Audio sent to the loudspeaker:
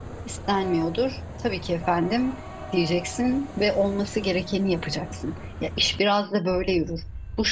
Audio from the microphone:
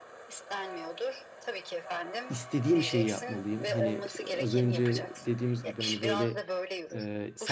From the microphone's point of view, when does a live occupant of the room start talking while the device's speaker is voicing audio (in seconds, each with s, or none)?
2.3 s